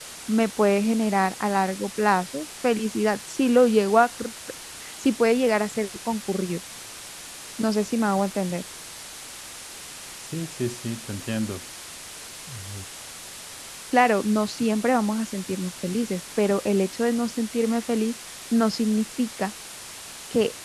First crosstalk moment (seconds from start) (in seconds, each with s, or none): none